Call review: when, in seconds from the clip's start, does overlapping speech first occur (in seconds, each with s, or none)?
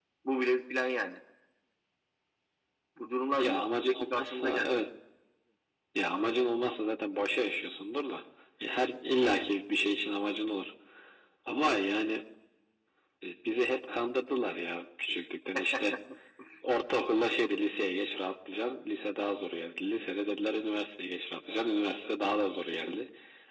3.4 s